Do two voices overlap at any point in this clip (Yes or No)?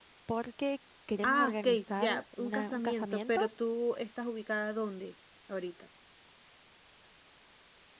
Yes